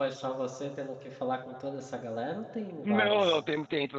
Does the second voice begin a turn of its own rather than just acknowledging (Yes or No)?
Yes